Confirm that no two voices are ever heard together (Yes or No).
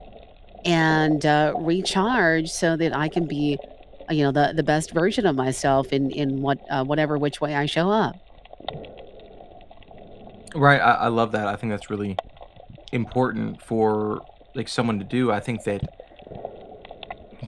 Yes